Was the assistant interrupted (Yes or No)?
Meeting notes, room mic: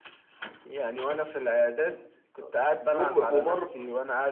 Yes